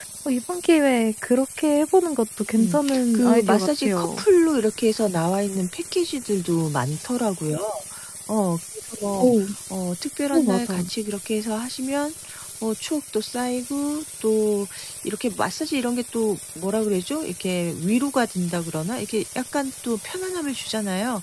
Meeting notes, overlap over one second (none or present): present